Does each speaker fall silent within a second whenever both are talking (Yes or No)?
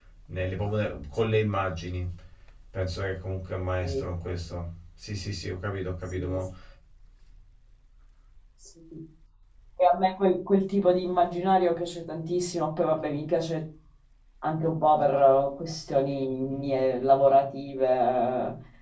Yes